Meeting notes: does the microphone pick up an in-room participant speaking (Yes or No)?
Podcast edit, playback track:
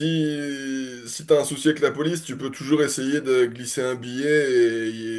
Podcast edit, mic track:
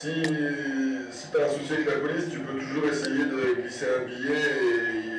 No